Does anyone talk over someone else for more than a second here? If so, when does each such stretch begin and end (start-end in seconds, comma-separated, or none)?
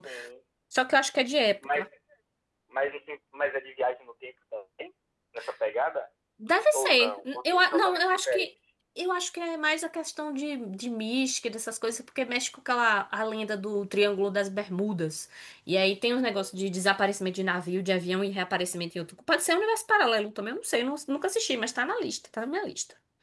6.7-8.5